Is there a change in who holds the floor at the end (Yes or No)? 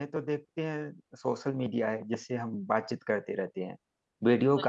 No